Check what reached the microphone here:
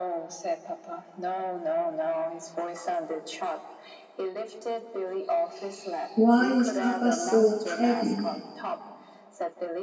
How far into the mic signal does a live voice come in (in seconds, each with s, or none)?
6.1 s